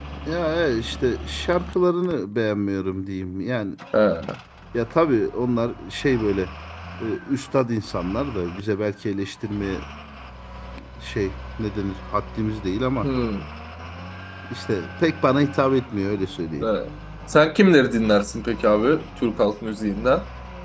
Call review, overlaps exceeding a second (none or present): none